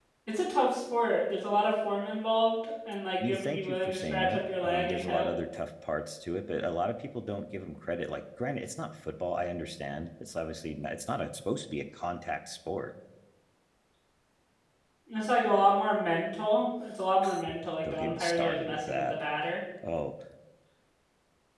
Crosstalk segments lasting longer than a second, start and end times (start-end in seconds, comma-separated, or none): 3.2-5.3, 17.8-19.2